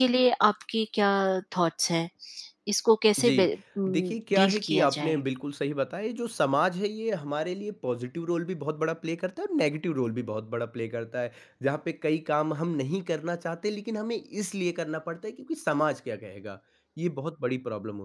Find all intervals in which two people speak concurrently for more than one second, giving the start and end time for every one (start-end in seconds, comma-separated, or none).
3.9-5.2